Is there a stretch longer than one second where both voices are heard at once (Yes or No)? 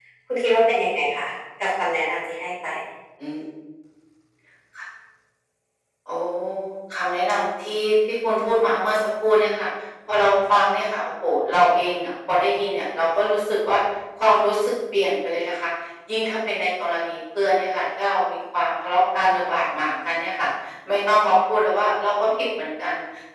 No